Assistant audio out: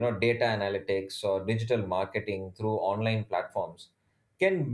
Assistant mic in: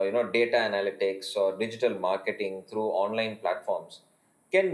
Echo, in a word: present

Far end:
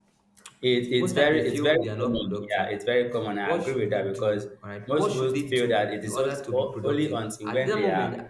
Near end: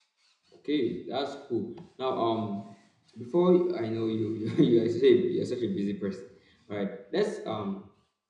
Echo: none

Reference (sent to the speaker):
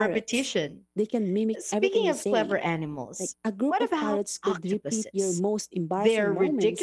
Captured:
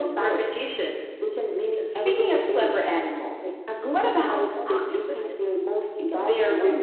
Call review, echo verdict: present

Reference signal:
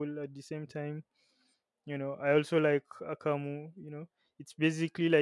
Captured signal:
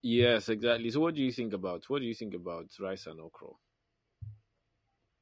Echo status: none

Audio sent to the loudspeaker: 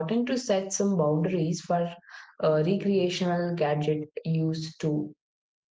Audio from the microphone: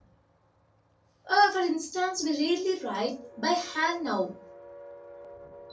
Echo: none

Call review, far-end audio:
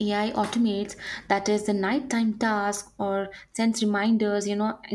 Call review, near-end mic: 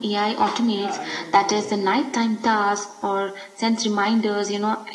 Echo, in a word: present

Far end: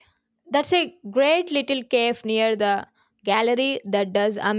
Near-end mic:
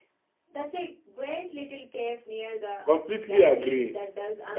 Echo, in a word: present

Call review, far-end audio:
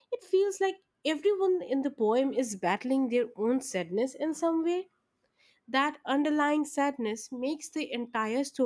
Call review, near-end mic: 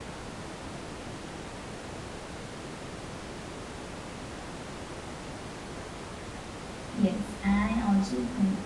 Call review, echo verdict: none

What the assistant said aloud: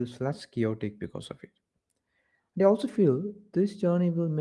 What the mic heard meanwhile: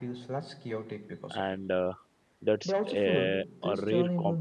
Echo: present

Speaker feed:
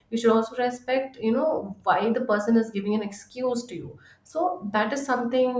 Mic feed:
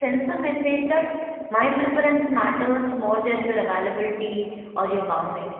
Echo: none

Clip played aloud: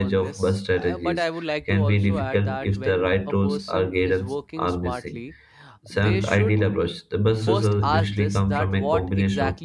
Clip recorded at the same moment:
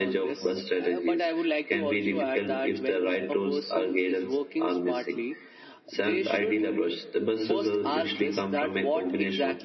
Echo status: present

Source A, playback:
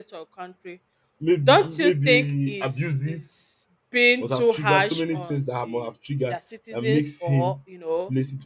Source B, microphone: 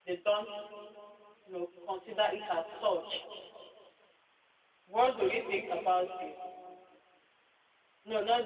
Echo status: none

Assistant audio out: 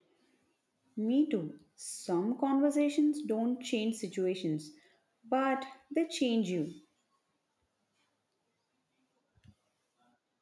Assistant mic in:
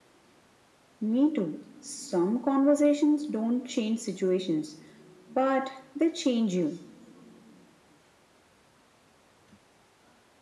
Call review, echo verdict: present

